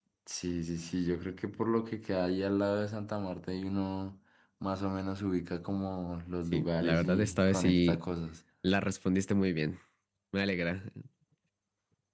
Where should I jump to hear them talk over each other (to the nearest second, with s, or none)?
7 s